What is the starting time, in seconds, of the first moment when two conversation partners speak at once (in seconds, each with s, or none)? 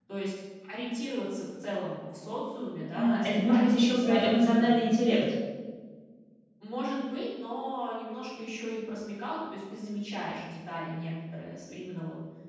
2.9 s